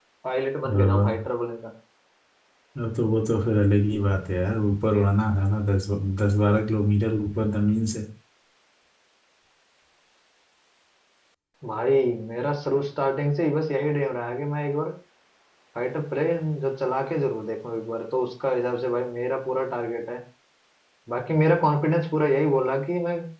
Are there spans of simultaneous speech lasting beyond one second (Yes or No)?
No